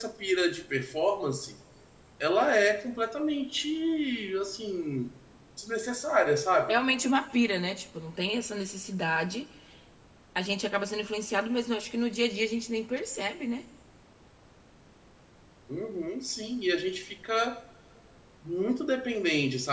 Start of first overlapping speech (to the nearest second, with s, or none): none